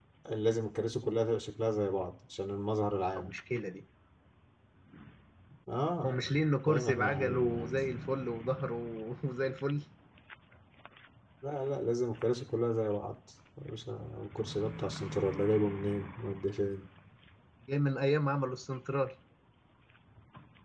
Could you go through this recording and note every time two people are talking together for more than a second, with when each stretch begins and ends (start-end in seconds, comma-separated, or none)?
6.0-7.8